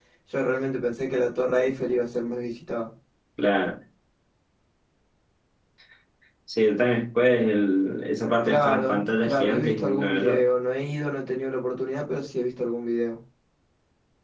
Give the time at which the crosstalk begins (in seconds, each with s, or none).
8.4 s